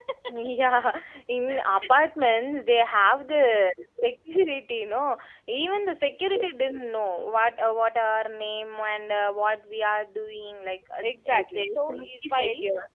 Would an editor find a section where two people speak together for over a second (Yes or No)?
Yes